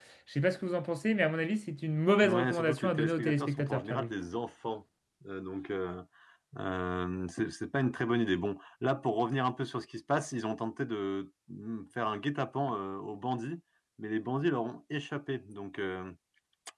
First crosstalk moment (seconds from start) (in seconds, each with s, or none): 2.2 s